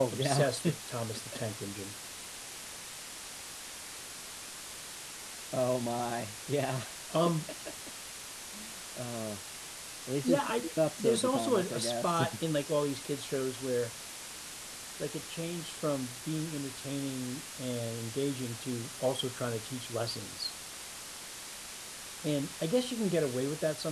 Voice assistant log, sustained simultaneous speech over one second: present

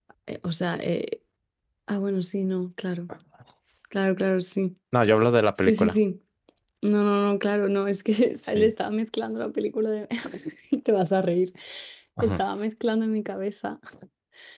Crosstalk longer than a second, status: none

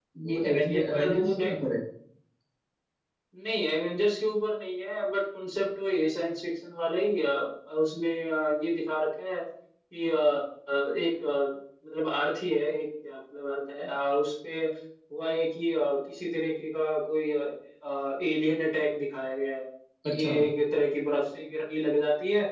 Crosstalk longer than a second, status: present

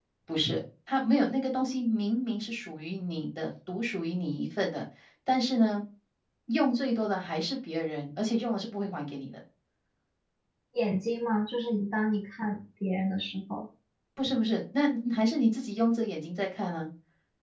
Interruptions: none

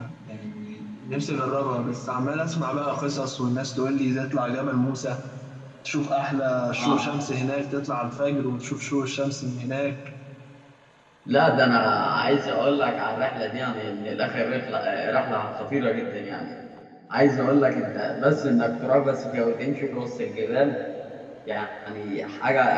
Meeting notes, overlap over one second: none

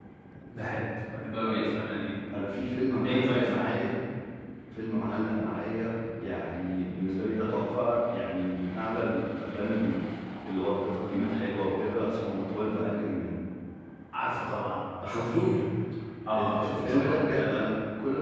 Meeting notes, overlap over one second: present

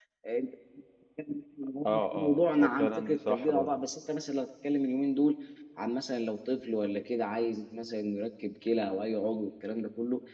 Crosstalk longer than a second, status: present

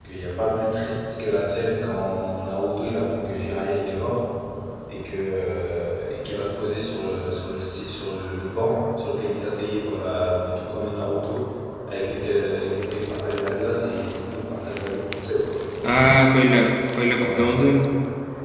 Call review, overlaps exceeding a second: none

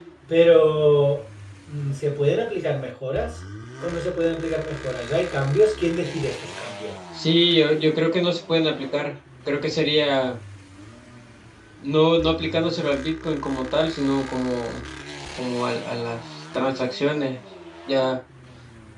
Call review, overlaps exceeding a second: none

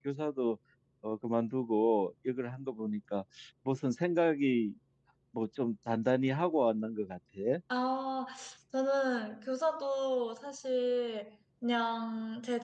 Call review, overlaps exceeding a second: none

